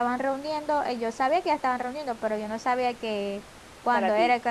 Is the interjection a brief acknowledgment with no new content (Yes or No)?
Yes